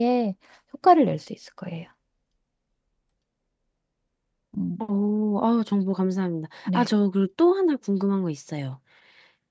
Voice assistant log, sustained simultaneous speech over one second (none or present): none